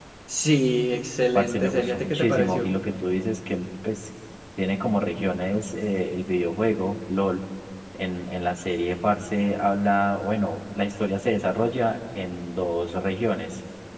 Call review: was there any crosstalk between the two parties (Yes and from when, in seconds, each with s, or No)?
Yes, from 1.3 s